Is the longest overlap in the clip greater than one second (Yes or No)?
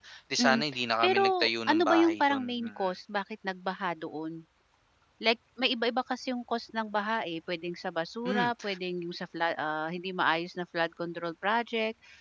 Yes